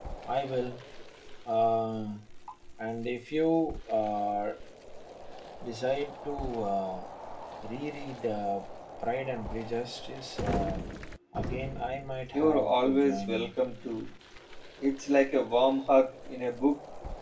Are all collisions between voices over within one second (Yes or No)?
No